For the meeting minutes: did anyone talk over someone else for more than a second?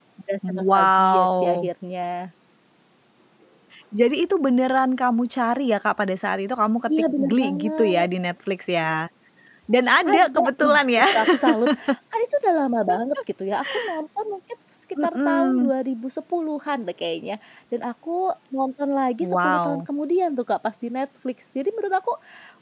Yes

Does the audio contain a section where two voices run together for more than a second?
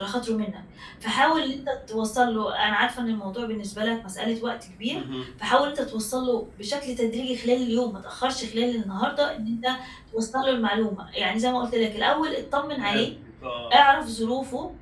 No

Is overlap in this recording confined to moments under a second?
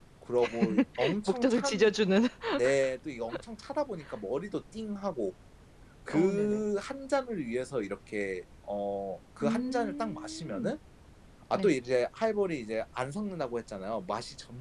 No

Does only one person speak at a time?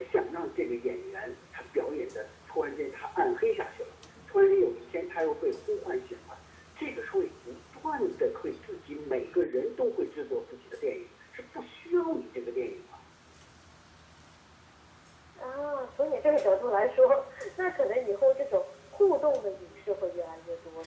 Yes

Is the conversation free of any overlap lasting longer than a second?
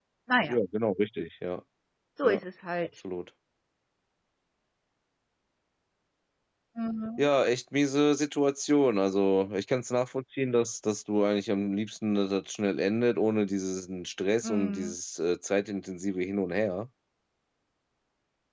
Yes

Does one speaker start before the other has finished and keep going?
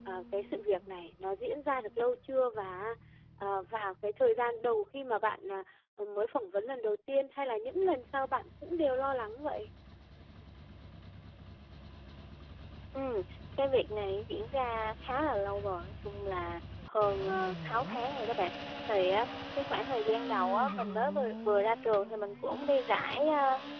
No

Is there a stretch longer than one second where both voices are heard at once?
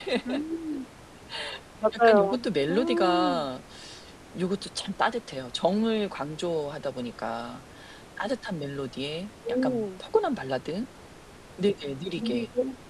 Yes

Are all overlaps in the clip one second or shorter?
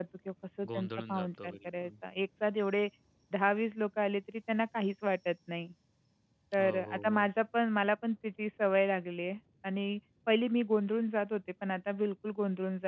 No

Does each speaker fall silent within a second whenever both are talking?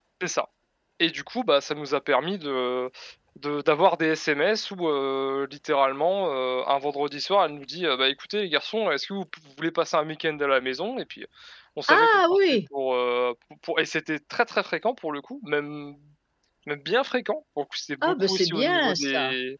No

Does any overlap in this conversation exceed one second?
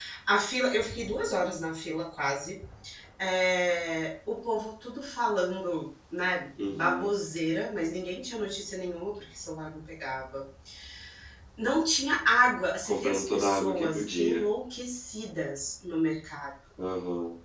Yes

